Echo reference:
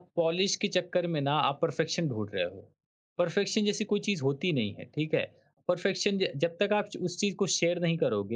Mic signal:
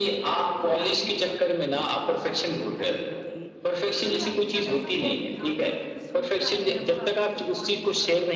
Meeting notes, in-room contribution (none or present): present